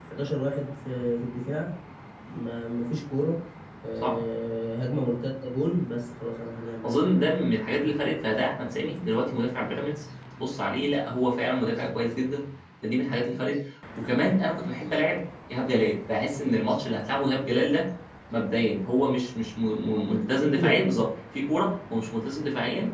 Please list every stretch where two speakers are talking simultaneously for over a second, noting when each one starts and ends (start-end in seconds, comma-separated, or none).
none